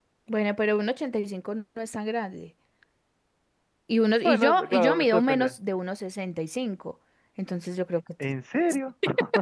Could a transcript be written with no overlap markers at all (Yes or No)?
No